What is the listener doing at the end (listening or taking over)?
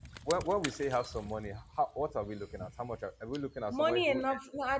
taking over